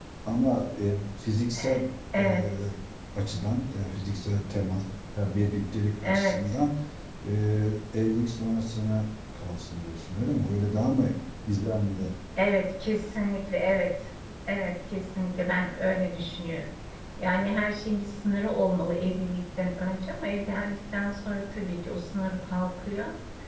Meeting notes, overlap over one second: none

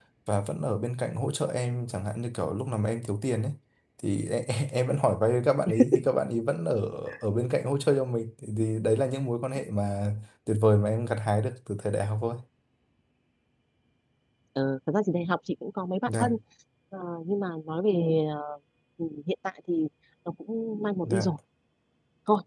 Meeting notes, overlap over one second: none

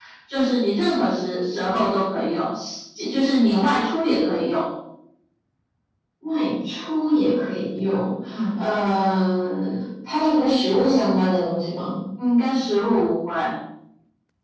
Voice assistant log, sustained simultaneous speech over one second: none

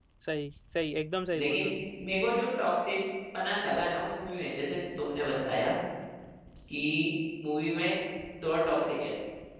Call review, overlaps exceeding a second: none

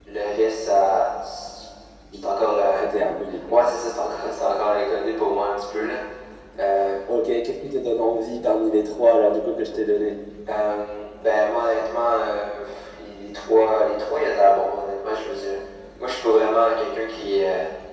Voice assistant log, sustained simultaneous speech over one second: none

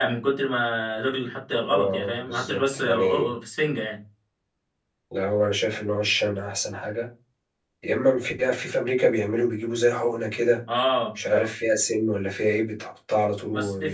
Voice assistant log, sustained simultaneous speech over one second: present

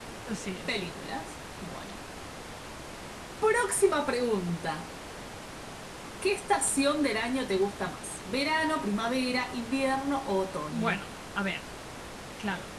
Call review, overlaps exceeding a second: none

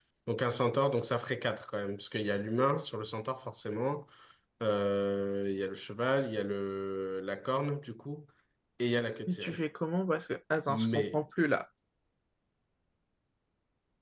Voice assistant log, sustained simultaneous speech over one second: none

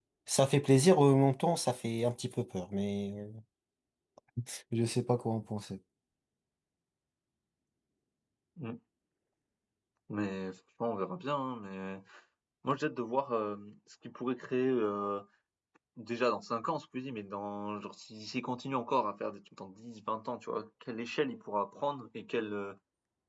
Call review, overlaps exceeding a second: none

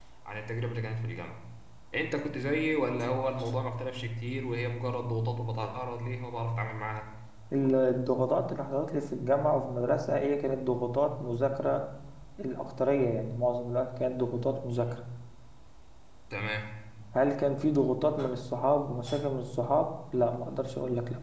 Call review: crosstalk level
none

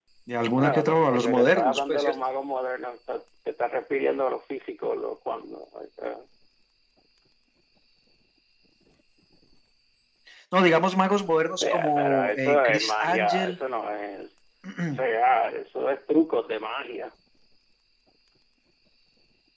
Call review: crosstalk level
present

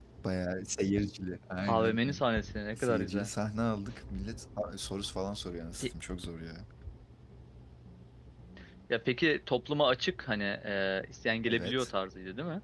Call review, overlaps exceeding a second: none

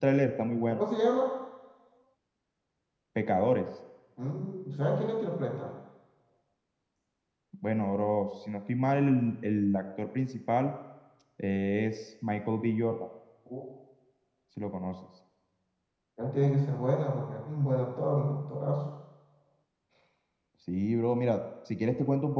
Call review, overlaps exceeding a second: none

